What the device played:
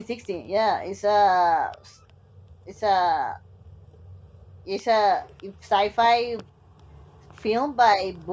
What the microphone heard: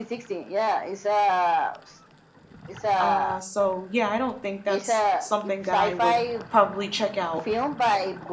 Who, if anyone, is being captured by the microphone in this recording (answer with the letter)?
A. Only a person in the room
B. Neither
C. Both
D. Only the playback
C